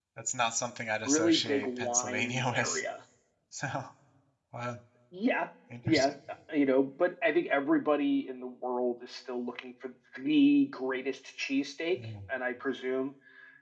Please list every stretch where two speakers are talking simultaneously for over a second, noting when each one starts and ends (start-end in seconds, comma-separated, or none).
1.1-2.8